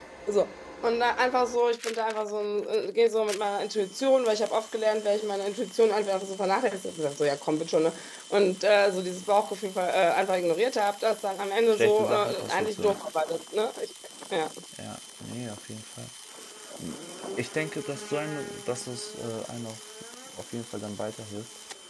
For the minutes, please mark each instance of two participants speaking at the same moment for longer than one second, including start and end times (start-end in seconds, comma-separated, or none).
11.7-13.0